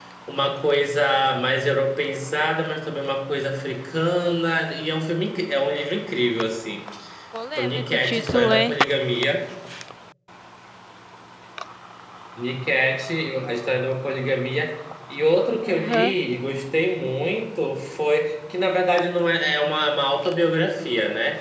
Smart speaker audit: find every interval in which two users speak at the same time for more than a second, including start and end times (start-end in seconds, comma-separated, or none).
7.5-8.8